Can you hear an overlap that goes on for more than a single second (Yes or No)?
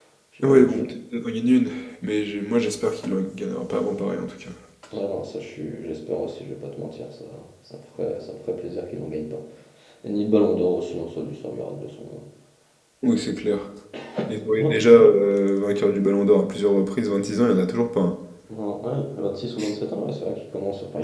No